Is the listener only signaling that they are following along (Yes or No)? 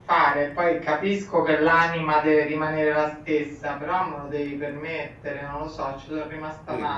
No